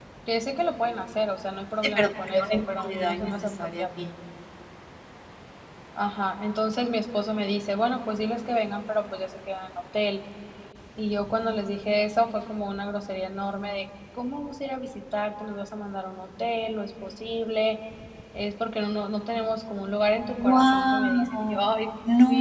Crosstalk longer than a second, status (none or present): present